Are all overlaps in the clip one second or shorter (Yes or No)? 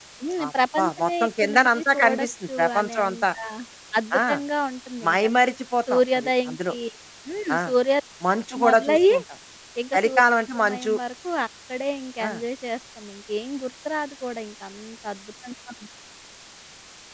No